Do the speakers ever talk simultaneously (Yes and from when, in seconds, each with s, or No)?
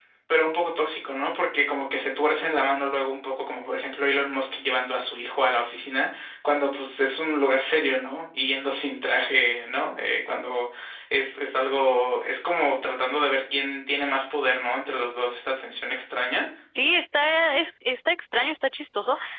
No